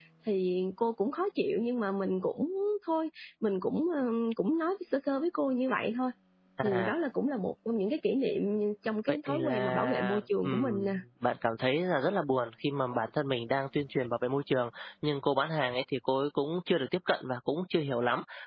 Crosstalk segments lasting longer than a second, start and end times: 9.1-10.9

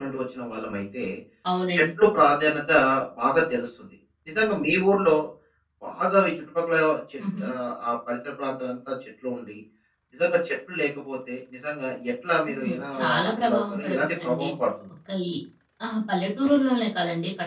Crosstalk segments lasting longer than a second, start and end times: 12.5-14.5

